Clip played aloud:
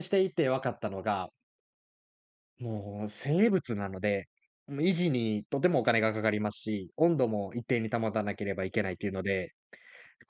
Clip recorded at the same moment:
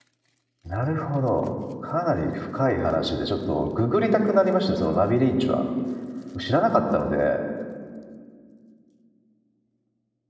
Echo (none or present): none